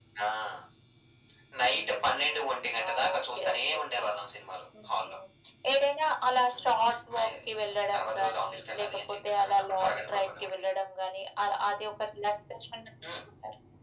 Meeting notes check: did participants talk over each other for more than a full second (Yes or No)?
Yes